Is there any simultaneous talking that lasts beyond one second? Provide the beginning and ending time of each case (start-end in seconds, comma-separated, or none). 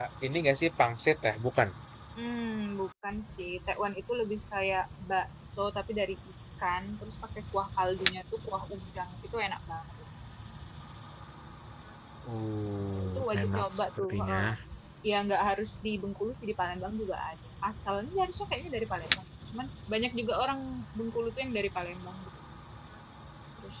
12.9-14.4